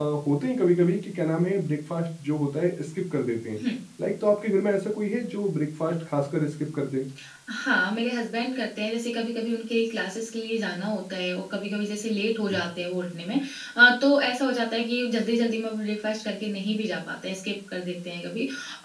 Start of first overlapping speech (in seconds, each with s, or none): none